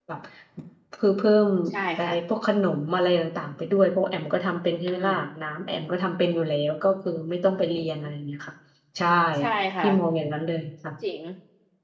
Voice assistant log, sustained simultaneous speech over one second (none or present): none